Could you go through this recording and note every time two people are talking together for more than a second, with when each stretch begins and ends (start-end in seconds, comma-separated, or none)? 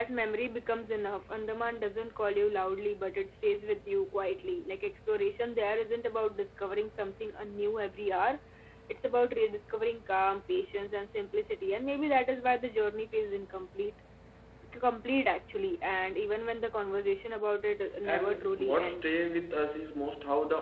18.0-19.2